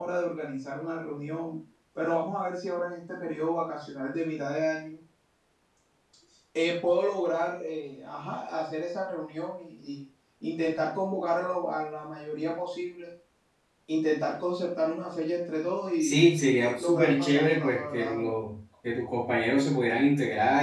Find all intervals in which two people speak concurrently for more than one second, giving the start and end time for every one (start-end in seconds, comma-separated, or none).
16.8-18.3